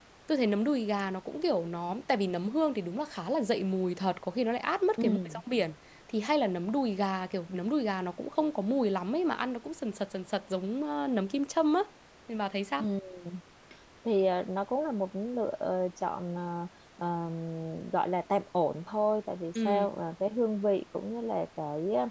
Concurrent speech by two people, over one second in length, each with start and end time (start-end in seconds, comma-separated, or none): none